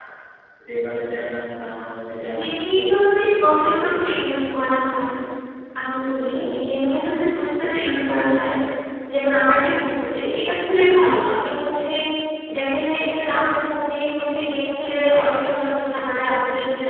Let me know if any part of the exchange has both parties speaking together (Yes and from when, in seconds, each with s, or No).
Yes, from 2.4 s